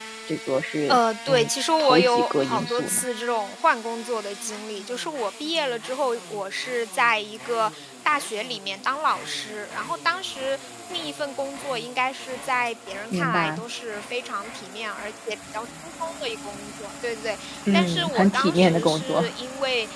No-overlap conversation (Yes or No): No